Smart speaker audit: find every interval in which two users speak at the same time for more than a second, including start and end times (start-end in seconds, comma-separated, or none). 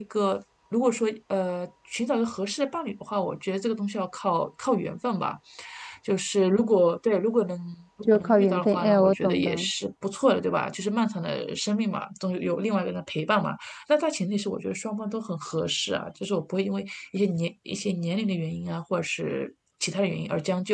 8.1-9.5